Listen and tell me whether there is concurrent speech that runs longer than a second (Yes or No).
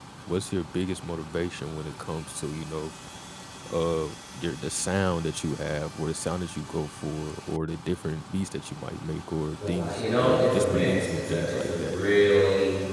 Yes